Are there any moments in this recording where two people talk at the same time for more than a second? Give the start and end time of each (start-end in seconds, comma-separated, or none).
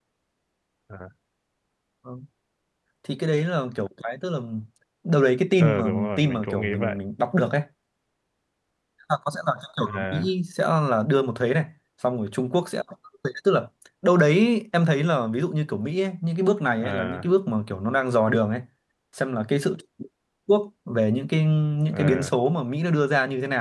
5.6-7.0